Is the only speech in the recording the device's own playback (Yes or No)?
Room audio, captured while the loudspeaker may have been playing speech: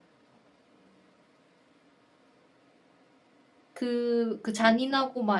No